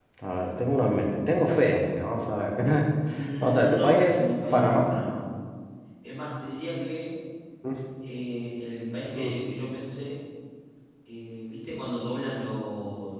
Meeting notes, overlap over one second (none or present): present